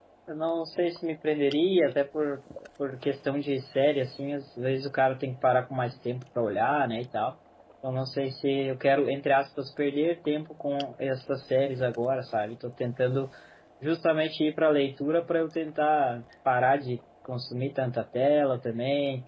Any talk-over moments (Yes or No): No